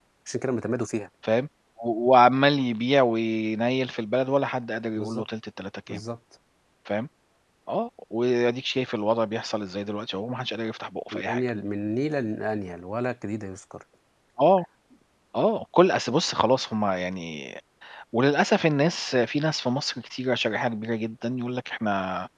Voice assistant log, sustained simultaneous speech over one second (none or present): none